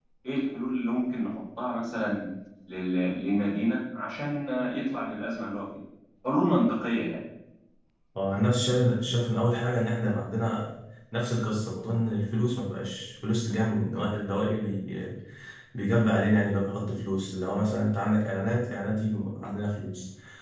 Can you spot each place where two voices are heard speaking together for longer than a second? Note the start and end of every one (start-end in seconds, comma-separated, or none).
none